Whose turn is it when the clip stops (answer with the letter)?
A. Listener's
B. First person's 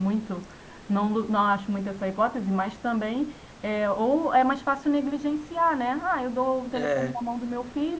B